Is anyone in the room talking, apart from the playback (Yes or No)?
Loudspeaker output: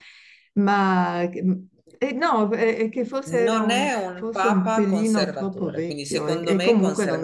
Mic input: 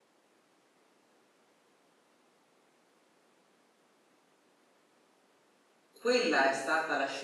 Yes